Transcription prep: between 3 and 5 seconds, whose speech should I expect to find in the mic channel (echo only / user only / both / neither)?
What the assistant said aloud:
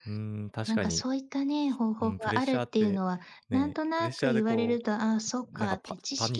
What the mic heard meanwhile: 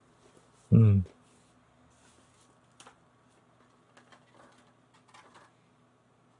neither